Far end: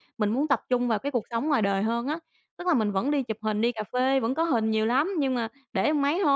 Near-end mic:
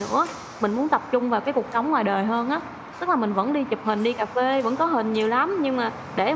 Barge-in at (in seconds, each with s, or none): none